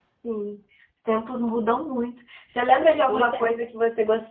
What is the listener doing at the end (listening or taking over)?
listening